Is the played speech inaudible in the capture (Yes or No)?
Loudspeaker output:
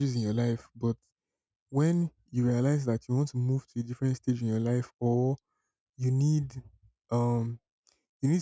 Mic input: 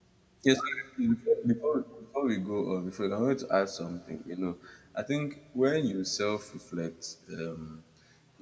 Yes